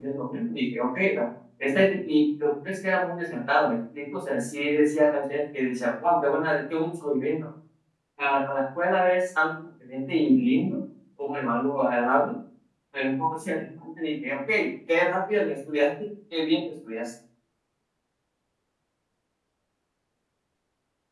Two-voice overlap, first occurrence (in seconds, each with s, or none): none